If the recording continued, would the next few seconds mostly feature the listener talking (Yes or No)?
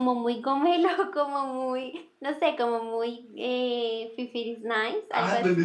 Yes